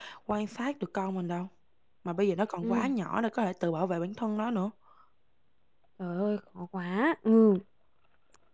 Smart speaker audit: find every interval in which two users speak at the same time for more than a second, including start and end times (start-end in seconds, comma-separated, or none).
none